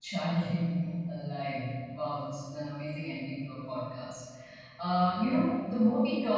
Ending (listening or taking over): listening